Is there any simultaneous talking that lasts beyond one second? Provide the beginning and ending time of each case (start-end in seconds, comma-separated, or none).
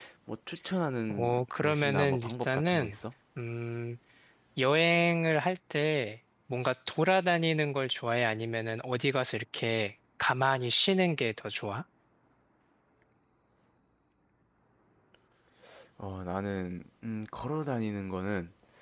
1.1-3.0